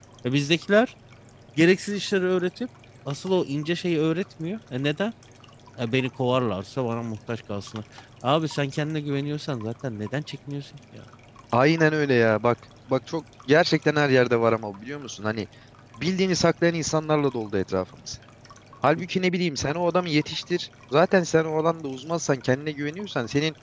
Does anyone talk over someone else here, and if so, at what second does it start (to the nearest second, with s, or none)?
none